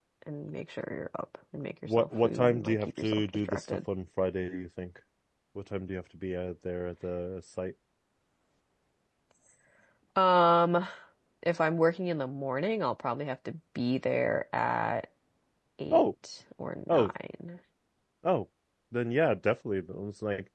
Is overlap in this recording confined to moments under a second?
No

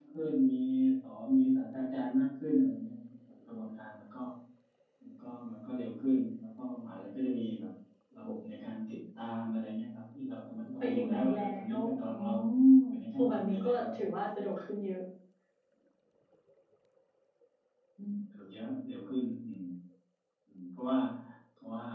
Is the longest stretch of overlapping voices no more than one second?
No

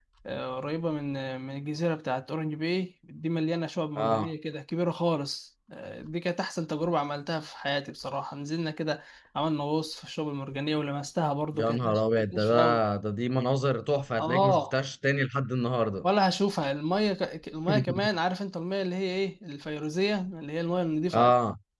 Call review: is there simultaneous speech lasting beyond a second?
Yes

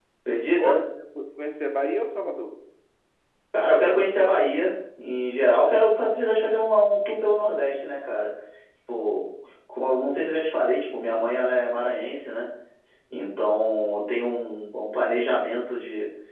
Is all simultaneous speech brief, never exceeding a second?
Yes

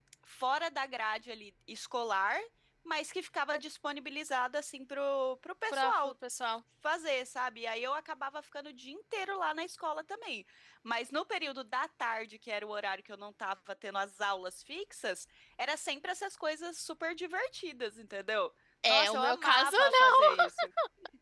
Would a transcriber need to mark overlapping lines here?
Yes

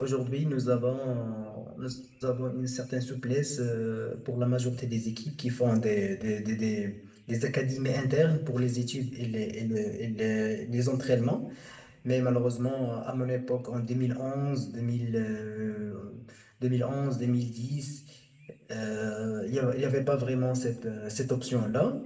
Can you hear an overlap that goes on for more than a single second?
No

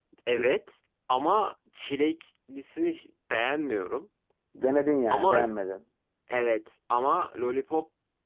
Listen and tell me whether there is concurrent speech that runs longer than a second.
No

